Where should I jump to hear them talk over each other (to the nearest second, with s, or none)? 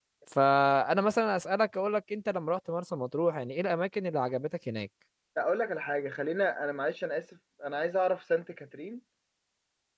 none